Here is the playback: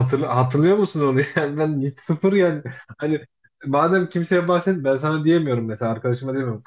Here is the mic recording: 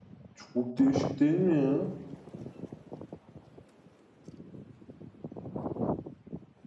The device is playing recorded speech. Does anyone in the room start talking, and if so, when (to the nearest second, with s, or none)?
0 s